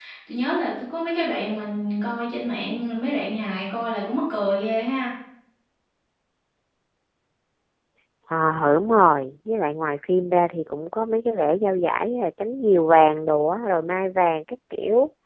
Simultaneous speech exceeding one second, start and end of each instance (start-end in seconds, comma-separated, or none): none